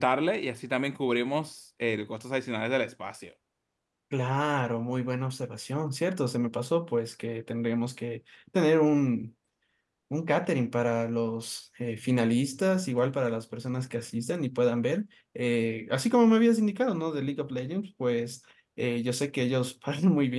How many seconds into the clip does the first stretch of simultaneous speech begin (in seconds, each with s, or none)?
none